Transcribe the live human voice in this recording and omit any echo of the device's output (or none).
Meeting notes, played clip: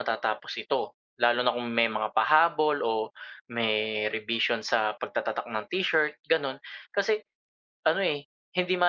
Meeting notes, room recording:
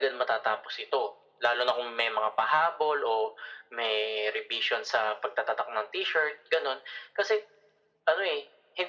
none